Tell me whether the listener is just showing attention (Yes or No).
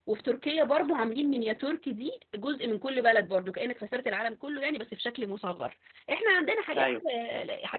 Yes